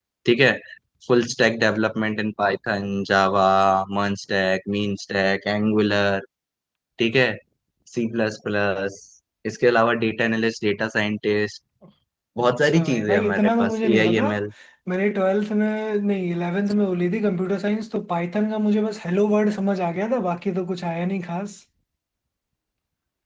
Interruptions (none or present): present